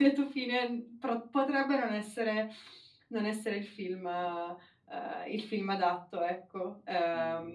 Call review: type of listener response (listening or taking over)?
taking over